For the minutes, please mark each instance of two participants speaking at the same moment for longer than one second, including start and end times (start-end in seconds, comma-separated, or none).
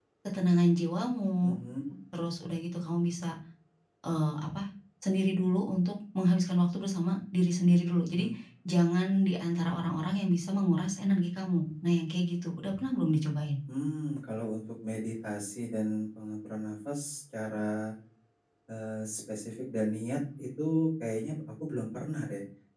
none